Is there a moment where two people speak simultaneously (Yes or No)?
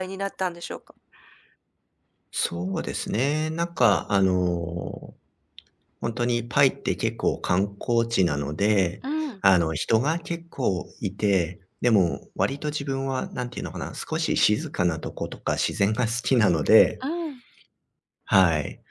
No